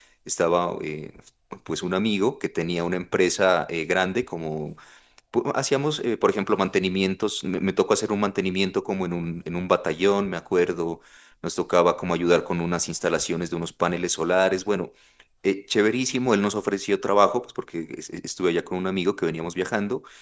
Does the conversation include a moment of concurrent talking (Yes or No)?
No